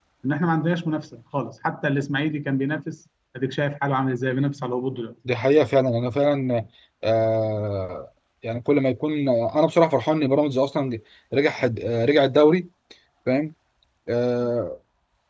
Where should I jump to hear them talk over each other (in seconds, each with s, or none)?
none